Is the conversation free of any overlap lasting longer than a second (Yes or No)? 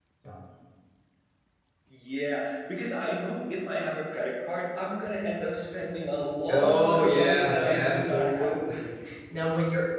No